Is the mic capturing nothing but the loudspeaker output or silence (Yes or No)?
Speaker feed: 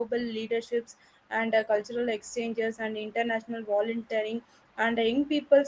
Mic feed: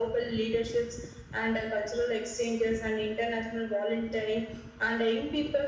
Yes